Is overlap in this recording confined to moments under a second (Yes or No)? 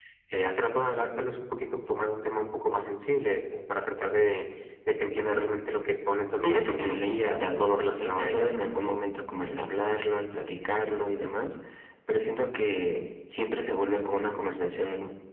No